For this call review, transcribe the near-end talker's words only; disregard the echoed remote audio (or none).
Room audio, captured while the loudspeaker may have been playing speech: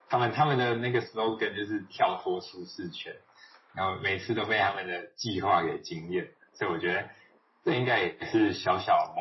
none